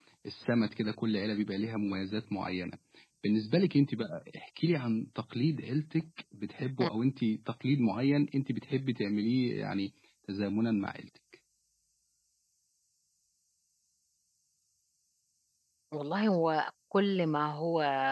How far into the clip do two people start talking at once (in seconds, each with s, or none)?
none